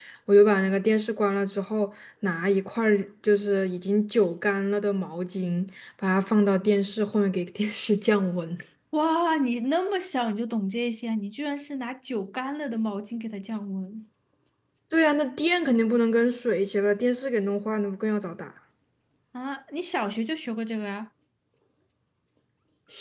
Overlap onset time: none

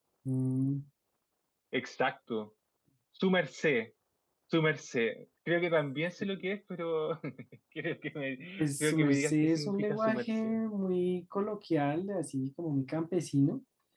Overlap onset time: 9 s

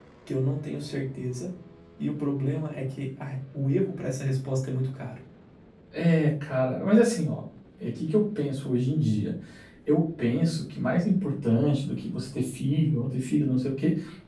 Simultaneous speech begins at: none

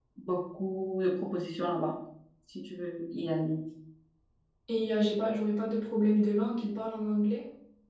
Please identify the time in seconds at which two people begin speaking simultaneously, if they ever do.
none

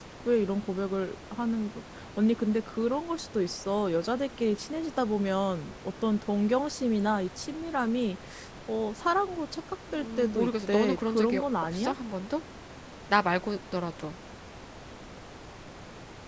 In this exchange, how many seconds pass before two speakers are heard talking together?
10 s

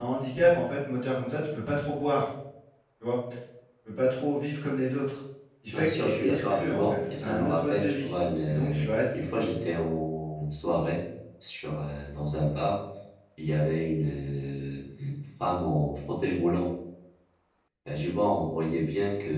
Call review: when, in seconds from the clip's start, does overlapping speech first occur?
6 s

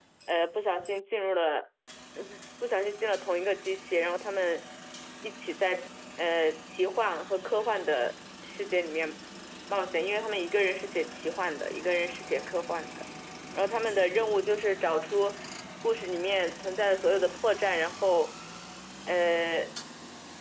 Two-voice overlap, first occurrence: none

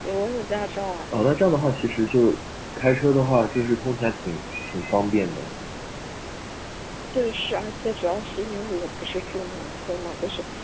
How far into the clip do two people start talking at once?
none

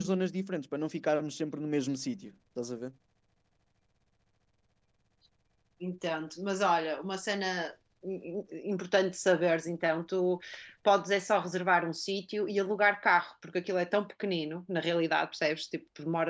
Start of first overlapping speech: none

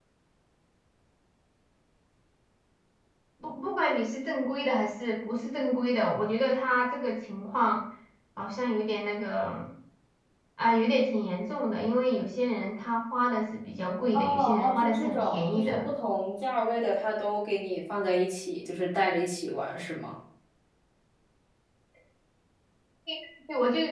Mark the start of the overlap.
14 s

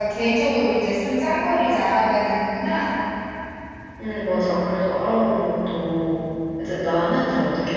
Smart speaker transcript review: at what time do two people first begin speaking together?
none

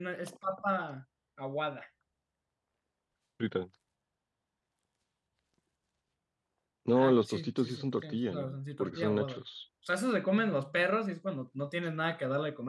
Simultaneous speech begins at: 7 s

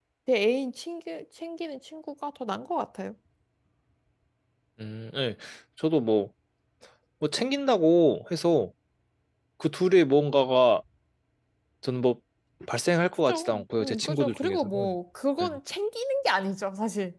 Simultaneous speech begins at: 13 s

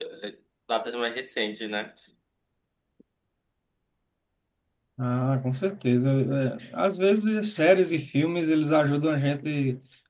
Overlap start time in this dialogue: none

